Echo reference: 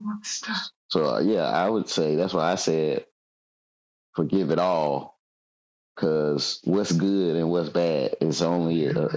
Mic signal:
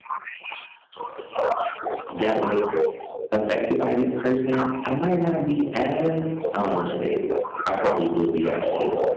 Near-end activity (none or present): present